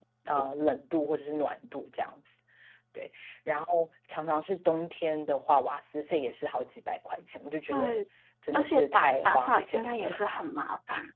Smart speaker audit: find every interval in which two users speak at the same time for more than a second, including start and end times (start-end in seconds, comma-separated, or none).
8.5-10.1